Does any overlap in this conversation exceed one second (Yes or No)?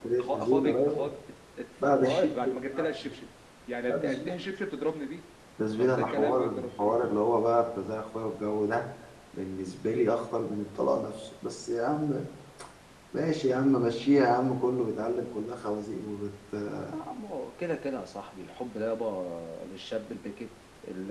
Yes